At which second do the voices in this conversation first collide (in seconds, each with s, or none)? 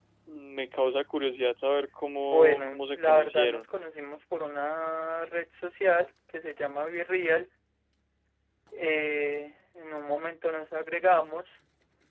2.2 s